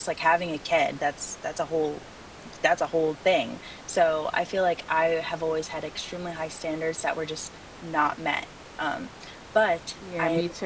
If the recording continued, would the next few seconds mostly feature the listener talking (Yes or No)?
Yes